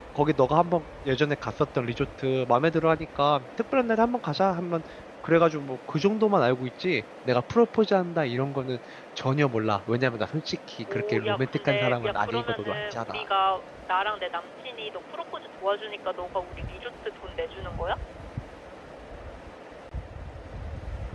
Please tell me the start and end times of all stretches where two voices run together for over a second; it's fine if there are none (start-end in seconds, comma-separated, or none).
10.9-13.2